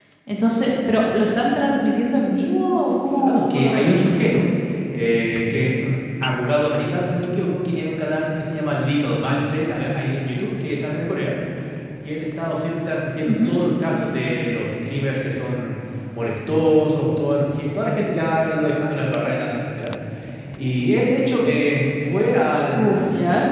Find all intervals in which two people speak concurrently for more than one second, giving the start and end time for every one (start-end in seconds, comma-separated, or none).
3.2-4.5